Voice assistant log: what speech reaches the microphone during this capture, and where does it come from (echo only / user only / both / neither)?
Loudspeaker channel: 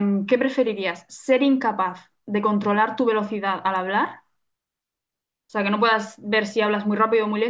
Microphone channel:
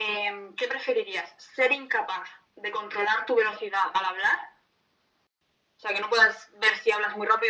echo only